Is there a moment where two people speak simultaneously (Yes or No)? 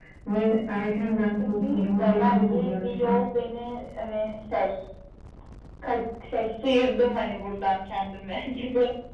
Yes